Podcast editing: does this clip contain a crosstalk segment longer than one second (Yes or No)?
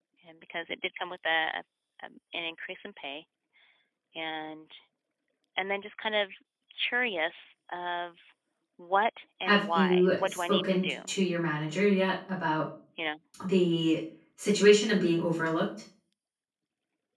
Yes